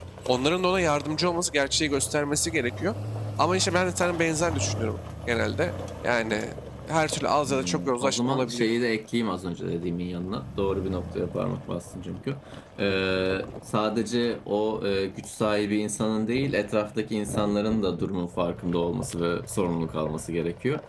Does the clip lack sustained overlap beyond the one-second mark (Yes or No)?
No